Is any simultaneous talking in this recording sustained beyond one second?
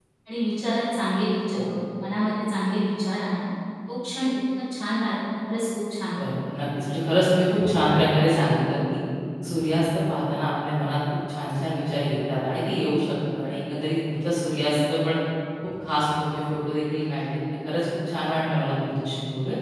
No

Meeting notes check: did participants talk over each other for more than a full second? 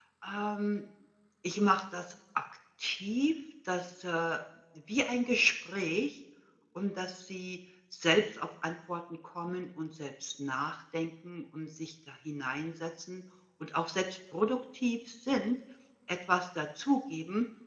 No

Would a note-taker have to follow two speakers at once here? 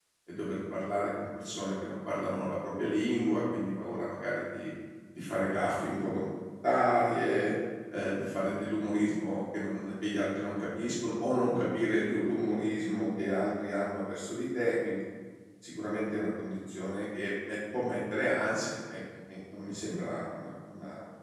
No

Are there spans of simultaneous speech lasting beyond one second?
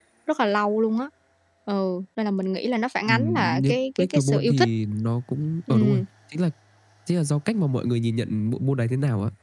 Yes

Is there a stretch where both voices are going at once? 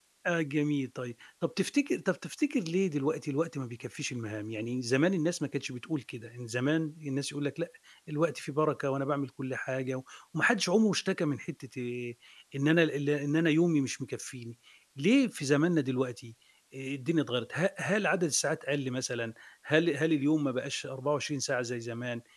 No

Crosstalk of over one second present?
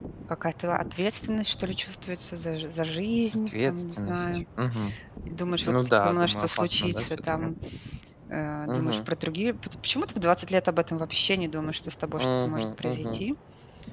Yes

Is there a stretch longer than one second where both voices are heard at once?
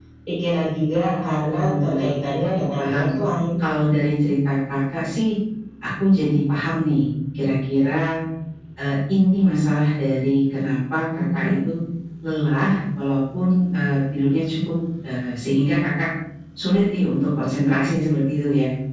Yes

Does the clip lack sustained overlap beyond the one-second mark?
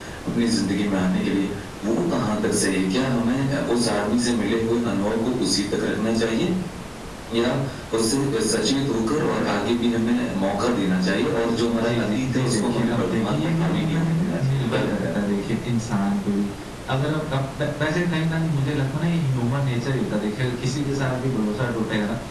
No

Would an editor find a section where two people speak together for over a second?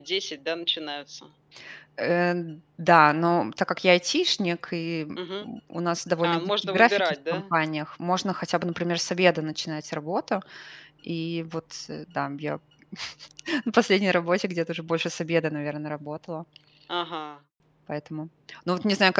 Yes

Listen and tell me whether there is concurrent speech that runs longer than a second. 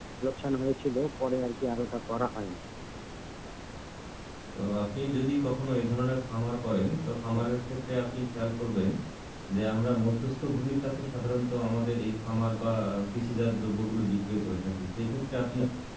No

